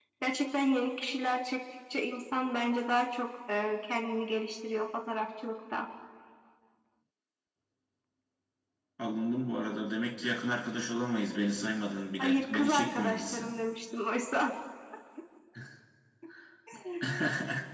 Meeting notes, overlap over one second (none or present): present